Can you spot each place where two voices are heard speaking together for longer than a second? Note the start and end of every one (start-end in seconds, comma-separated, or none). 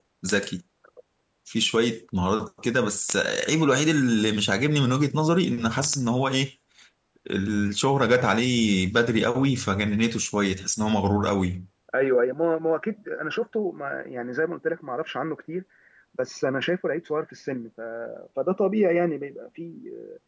none